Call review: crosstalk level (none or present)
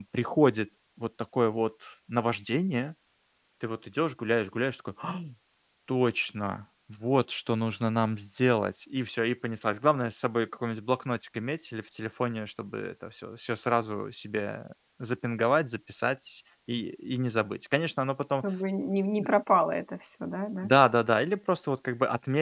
none